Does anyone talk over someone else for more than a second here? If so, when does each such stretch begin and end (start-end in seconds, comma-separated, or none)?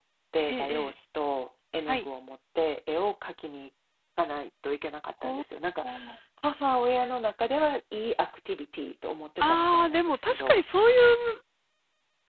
9.4-10.6